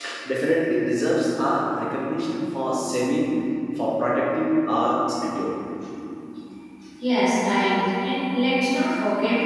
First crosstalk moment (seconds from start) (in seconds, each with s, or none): none